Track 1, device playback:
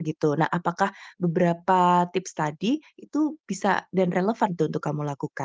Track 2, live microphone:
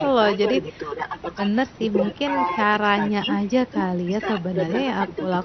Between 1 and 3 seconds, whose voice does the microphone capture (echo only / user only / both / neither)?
both